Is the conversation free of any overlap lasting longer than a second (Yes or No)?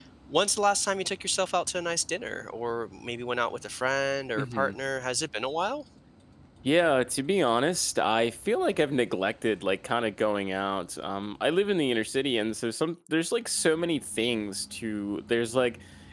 Yes